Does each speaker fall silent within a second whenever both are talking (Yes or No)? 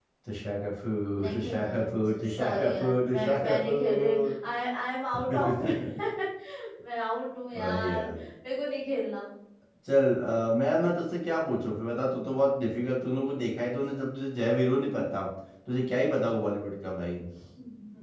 No